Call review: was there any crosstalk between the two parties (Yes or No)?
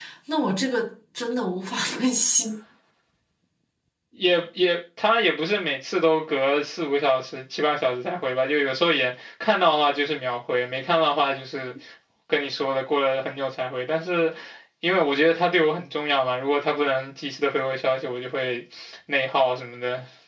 No